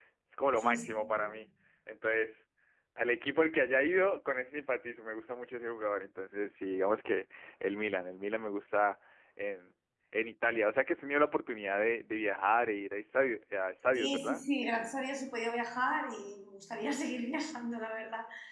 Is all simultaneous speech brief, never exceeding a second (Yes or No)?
Yes